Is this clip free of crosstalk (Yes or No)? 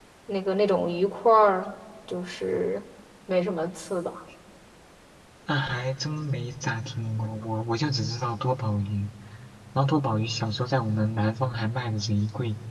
Yes